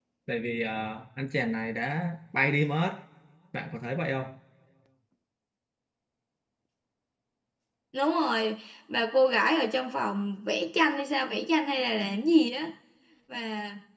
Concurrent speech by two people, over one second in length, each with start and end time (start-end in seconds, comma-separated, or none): none